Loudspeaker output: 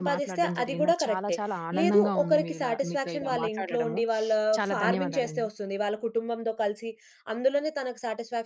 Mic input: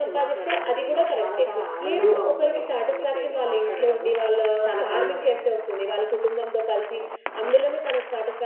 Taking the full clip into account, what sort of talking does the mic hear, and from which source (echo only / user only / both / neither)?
echo only